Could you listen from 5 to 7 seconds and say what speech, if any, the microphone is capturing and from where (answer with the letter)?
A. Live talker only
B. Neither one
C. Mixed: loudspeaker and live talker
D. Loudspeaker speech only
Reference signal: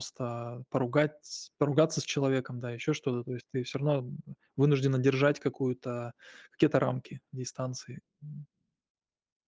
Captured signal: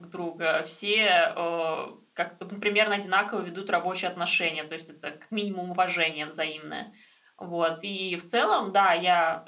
A